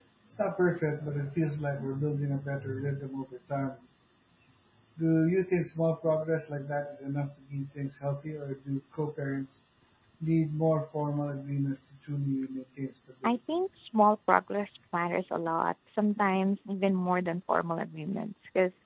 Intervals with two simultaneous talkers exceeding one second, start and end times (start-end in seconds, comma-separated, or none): none